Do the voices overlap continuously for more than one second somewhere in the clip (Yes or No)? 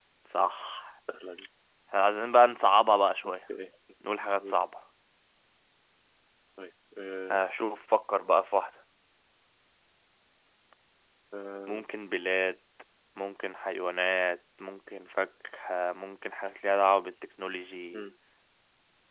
No